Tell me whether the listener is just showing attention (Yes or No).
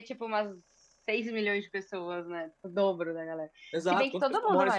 No